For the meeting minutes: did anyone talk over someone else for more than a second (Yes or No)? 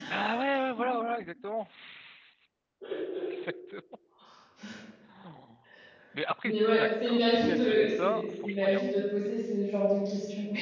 Yes